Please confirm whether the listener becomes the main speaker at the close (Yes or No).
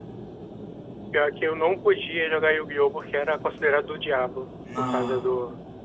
No